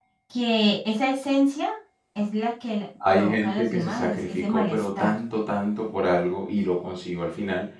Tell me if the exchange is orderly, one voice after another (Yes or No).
No